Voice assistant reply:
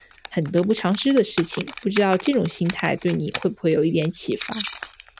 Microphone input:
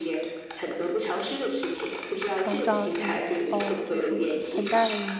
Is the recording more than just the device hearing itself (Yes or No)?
Yes